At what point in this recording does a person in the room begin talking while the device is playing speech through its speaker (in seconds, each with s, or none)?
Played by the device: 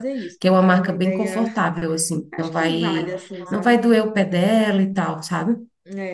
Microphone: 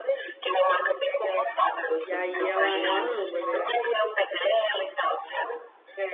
2.0 s